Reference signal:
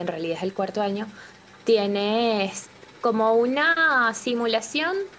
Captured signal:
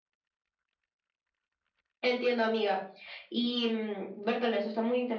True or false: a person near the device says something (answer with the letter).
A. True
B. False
A